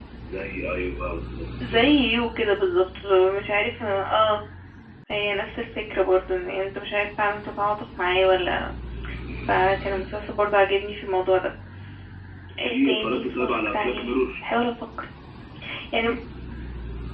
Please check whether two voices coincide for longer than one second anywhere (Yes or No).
Yes